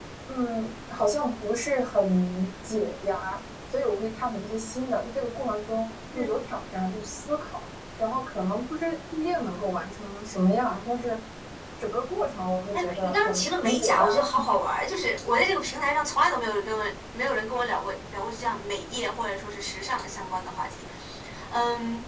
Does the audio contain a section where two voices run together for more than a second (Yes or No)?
Yes